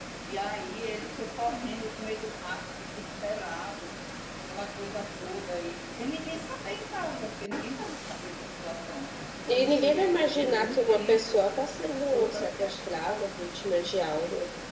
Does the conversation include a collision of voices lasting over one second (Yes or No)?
Yes